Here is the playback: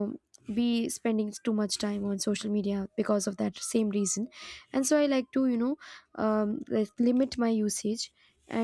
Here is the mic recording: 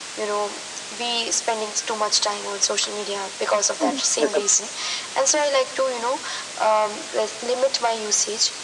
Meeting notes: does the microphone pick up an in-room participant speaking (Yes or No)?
Yes